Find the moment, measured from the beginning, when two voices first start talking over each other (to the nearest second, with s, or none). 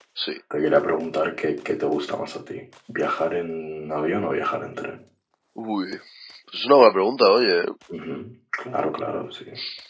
none